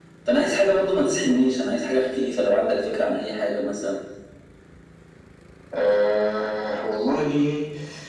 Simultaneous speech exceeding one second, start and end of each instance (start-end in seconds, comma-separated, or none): none